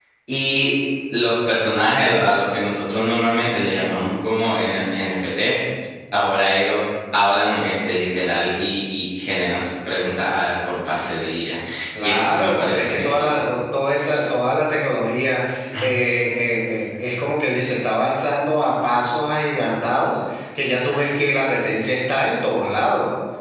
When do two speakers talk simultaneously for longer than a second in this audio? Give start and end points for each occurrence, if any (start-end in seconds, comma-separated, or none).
12.0-13.3